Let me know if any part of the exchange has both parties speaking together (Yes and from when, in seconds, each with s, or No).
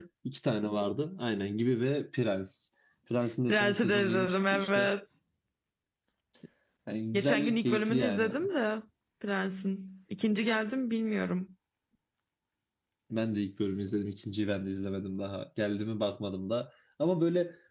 Yes, from 3.5 s